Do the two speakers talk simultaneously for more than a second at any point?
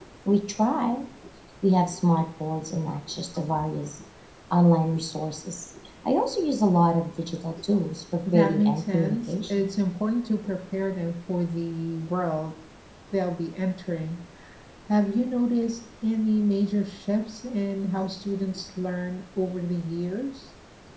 Yes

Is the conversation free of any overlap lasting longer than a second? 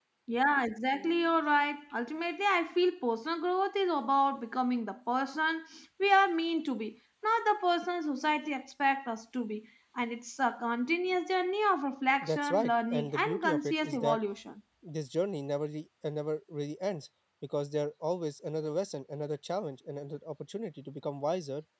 No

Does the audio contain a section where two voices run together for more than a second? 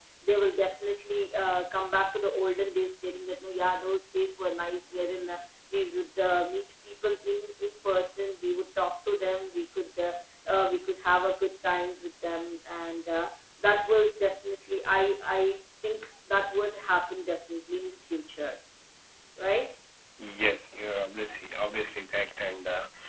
No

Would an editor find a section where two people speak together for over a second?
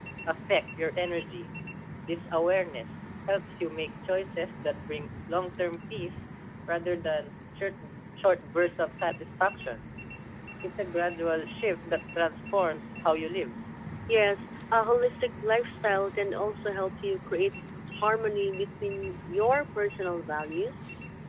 No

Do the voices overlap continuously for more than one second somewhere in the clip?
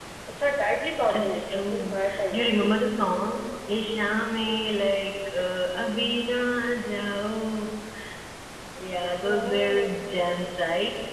Yes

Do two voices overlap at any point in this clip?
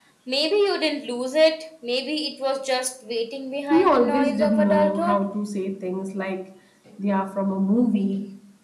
Yes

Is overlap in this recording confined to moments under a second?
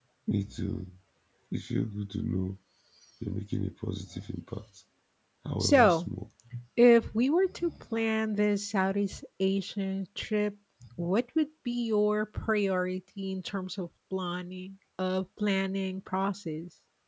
Yes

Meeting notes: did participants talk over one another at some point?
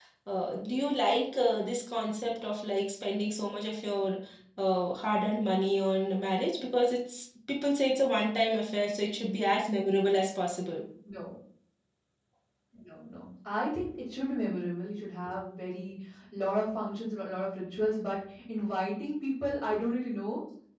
No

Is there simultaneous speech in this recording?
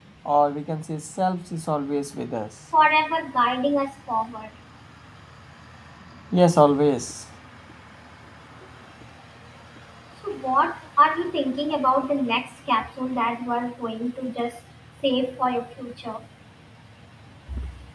No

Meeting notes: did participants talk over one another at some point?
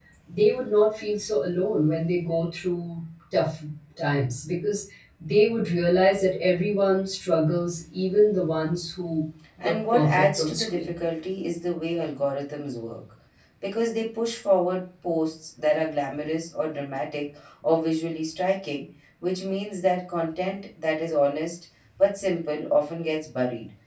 Yes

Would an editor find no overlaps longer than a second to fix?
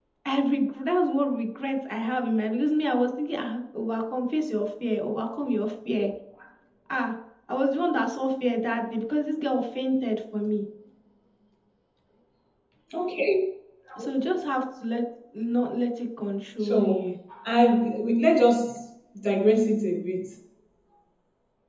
Yes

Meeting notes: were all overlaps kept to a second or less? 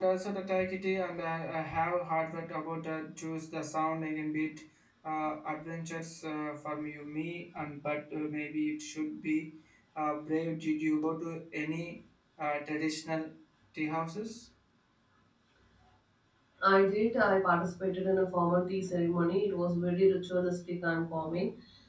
Yes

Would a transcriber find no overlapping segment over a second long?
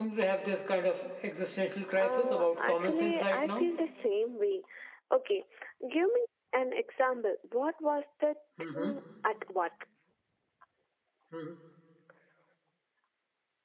No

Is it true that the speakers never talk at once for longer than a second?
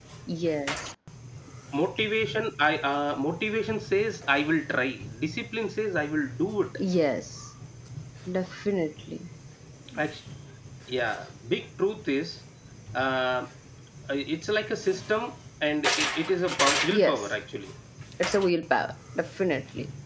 Yes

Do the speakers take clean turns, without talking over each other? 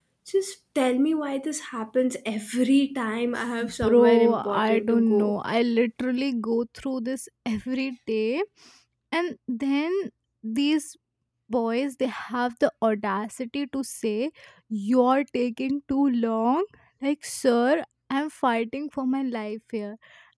No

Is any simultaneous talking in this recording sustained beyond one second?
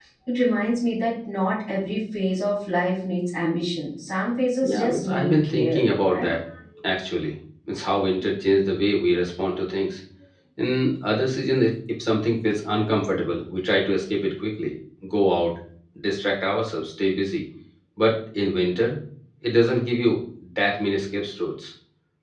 Yes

